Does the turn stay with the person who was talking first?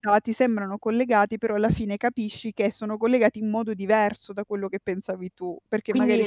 No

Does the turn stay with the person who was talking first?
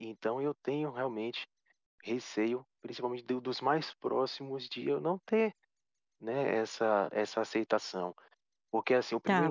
No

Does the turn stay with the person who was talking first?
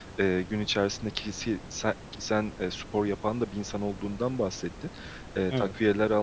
Yes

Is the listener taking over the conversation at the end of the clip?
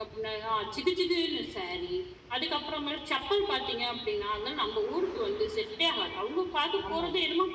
No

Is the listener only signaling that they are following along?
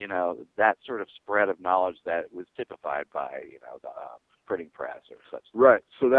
No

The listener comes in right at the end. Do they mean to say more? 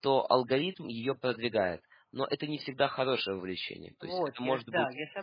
Yes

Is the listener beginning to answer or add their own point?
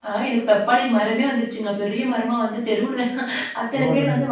No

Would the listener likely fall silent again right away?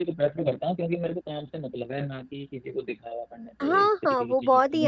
No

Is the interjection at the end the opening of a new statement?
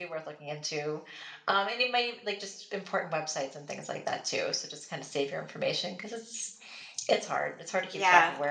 Yes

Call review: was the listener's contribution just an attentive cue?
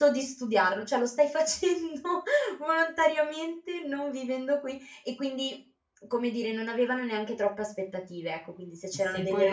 No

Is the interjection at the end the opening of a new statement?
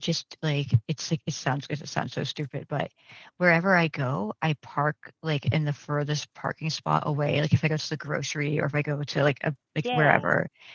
No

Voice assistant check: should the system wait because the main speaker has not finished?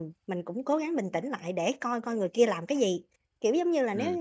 Yes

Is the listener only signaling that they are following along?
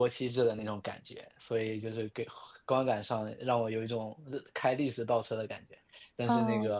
Yes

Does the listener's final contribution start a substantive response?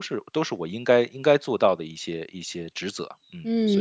Yes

